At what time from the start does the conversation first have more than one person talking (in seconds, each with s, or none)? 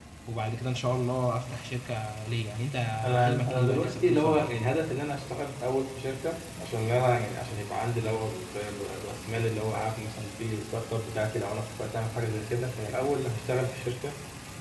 3.2 s